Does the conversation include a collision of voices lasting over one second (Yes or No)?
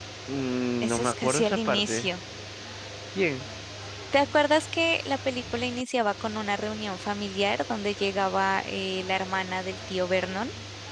Yes